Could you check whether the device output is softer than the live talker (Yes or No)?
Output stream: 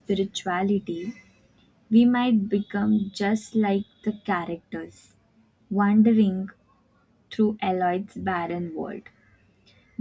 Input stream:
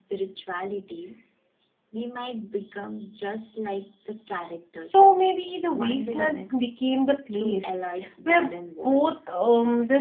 Yes